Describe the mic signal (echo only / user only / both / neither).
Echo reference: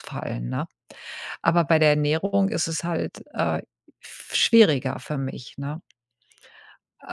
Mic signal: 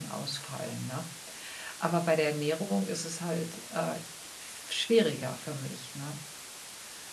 echo only